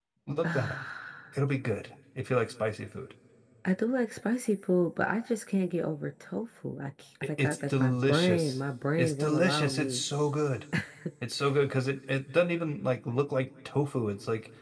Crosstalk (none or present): present